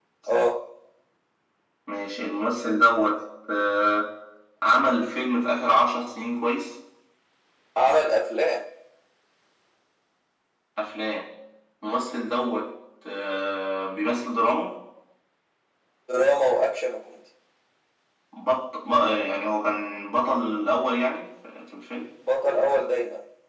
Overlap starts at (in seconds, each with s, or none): none